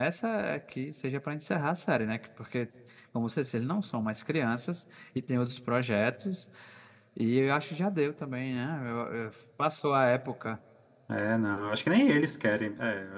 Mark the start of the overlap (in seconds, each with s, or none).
none